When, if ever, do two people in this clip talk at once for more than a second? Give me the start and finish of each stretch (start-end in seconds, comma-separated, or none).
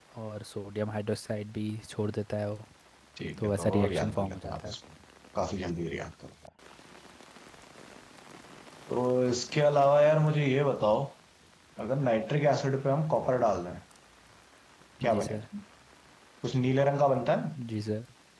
3.4-4.8